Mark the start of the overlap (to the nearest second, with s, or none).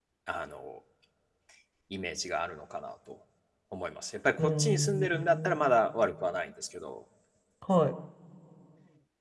4 s